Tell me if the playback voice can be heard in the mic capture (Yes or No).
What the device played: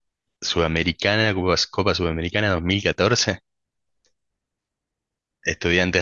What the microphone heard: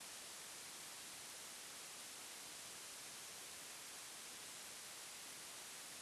No